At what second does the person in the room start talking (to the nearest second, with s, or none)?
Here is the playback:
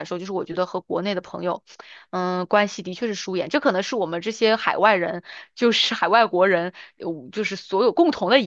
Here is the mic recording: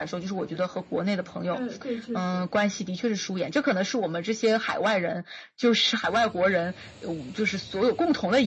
1 s